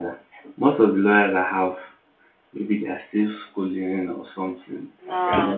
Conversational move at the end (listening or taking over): taking over